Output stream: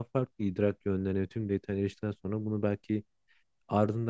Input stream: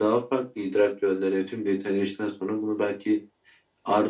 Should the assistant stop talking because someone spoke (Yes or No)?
No